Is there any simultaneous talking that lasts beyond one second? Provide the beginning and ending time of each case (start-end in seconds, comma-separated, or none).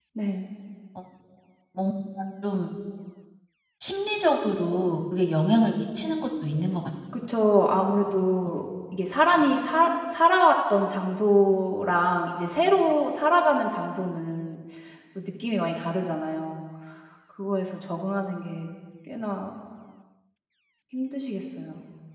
none